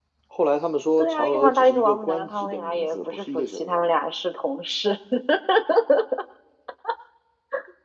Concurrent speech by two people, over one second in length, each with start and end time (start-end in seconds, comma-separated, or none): 1.0-3.9